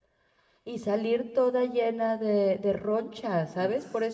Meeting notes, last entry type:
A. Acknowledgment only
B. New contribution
A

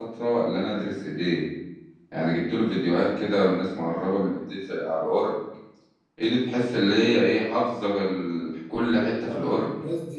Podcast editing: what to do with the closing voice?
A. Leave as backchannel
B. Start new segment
B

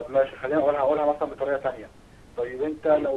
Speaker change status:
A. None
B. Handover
A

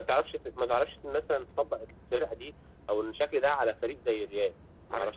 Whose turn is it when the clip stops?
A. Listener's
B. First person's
A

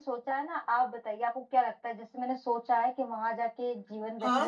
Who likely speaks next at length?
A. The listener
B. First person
A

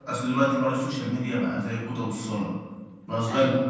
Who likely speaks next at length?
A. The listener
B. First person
B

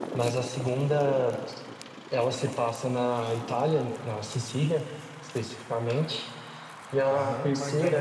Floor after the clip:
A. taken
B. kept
A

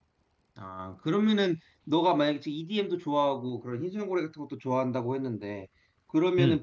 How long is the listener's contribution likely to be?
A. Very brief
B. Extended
A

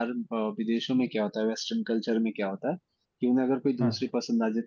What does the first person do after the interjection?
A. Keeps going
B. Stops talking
A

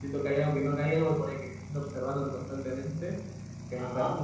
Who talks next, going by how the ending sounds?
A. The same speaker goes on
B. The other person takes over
A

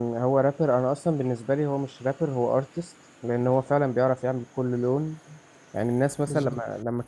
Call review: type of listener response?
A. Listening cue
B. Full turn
A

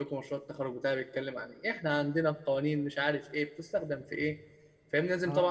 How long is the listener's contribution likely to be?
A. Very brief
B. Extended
A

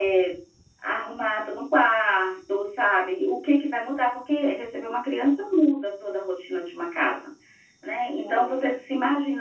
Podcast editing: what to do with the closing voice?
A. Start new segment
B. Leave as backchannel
B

